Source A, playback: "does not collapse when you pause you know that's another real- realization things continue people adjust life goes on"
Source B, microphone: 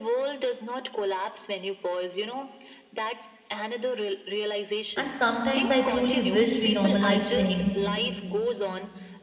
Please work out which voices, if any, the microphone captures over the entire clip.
both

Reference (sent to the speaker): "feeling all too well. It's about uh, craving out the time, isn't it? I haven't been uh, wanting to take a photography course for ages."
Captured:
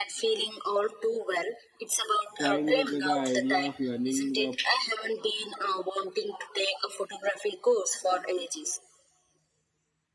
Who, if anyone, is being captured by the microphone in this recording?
both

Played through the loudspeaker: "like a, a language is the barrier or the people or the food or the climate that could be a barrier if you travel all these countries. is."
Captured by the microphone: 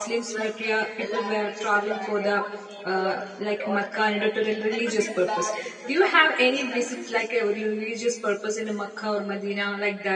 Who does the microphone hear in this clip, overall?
both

